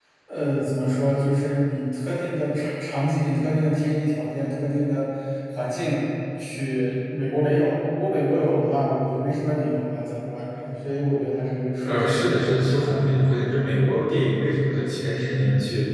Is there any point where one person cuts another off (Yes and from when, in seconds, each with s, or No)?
Yes, from 11.8 s